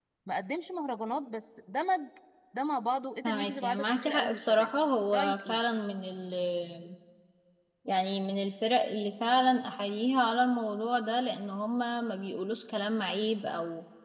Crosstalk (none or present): present